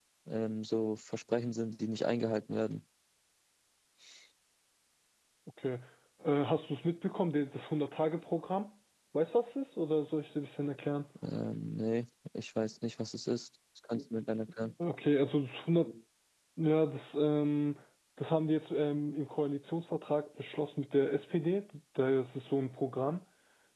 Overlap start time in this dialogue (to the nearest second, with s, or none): none